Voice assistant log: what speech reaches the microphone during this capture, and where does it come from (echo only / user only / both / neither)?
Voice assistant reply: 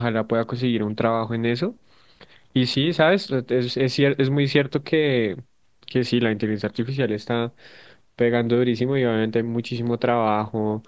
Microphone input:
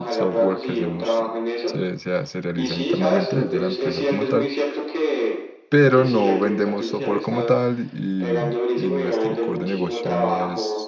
both